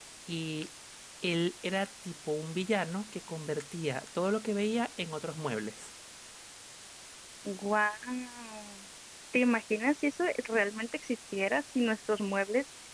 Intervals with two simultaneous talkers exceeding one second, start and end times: none

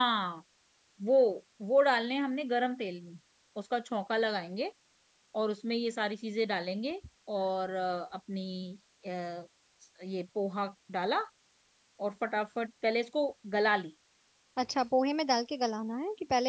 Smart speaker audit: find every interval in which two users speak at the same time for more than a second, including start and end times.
none

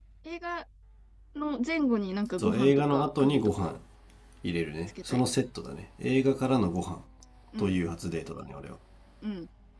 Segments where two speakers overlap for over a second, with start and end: 2.4-3.8

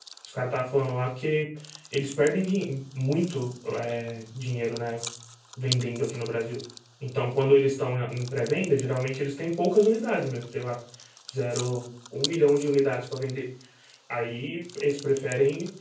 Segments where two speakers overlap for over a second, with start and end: none

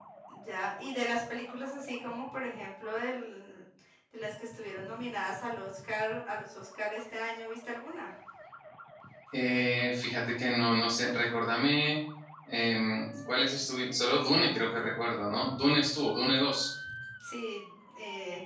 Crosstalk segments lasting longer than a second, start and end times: none

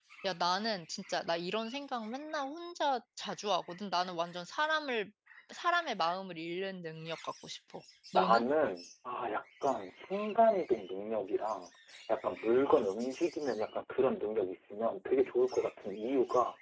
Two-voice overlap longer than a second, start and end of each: none

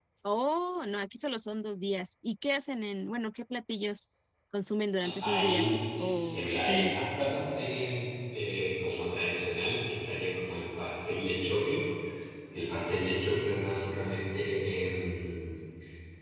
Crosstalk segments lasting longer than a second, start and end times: 5.2-6.9

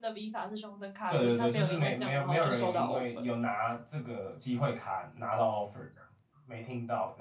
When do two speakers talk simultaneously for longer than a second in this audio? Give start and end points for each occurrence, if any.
1.1-3.3

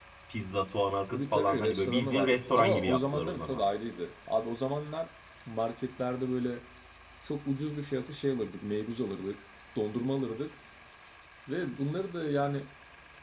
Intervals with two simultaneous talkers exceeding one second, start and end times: 1.1-3.6

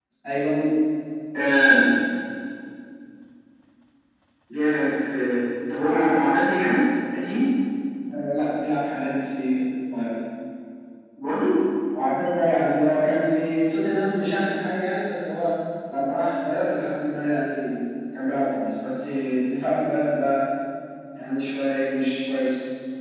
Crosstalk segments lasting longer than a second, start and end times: none

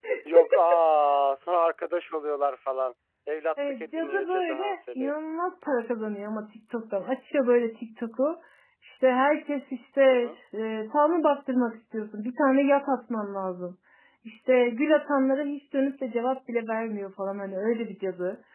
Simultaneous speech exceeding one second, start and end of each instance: 3.8-5.2

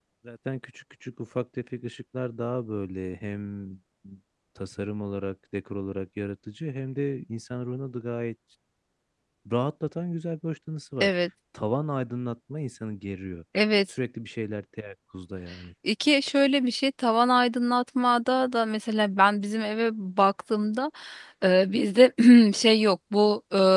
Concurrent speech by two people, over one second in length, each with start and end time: none

